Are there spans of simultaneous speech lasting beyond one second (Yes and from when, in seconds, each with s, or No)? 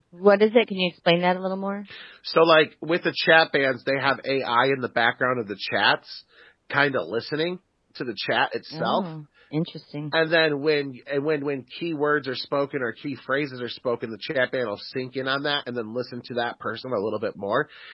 No